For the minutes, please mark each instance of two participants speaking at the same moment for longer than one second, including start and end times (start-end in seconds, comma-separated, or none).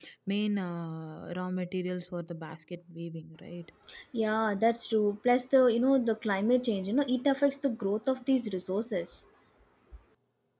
none